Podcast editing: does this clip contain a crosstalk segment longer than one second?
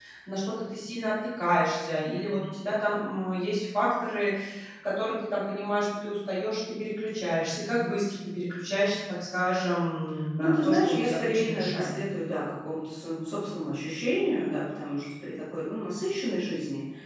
Yes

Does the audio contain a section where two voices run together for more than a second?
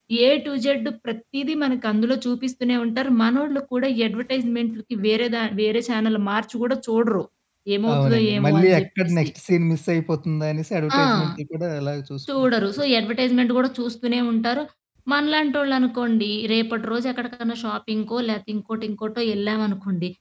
Yes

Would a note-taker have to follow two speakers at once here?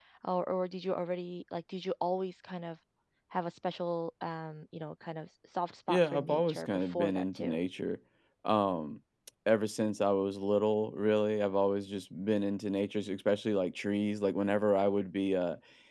Yes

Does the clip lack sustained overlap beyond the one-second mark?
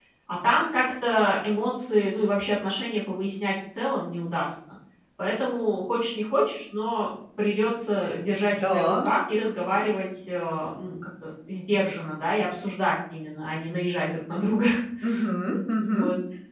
Yes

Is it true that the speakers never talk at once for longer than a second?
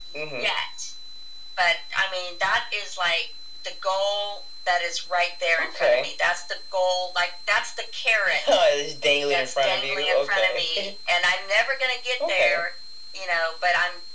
No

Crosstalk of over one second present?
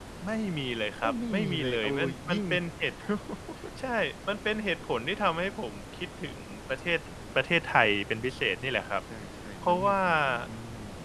Yes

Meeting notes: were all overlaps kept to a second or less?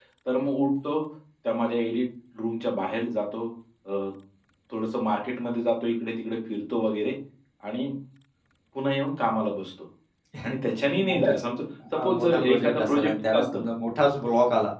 No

